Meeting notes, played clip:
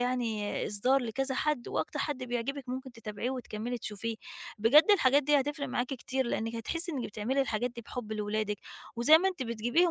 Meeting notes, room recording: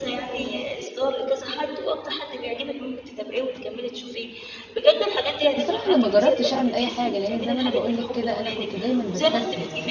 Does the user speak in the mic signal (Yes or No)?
Yes